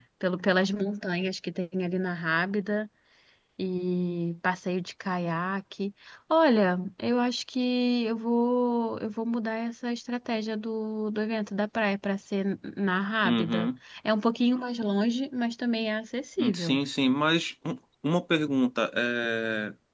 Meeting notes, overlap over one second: none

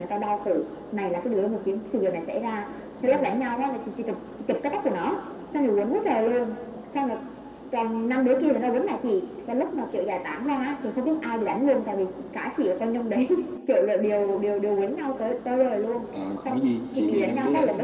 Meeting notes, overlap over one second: present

